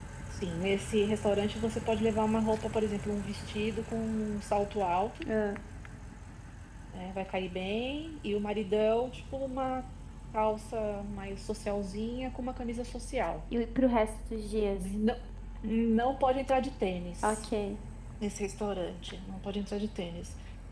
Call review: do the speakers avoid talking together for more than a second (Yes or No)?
Yes